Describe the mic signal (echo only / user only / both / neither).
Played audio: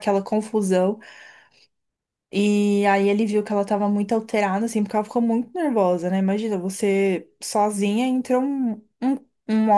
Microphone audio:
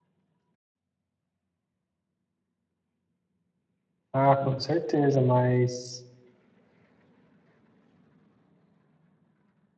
user only